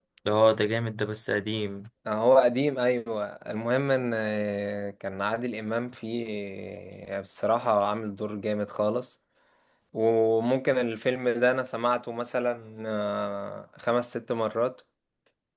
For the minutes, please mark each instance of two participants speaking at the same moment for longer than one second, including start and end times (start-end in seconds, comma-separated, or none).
none